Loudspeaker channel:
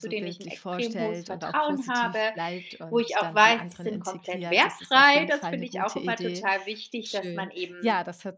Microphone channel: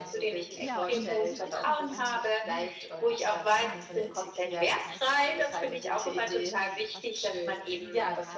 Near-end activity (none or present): present